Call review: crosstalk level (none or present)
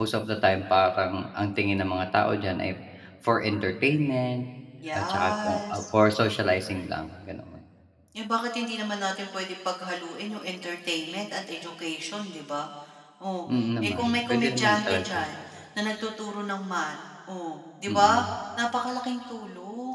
present